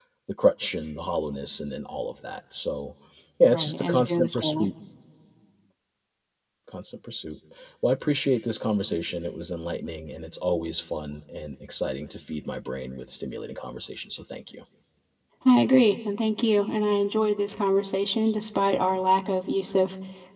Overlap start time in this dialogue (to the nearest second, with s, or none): 3 s